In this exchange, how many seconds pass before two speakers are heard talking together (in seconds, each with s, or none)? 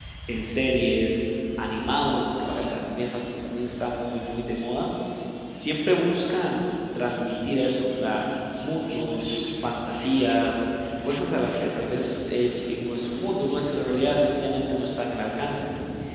none